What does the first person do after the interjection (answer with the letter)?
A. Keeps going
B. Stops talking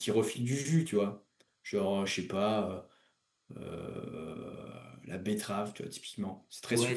B